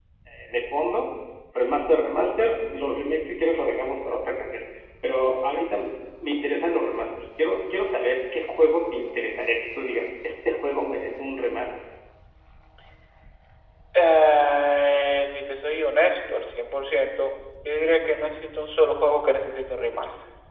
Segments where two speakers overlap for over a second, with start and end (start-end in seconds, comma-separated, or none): none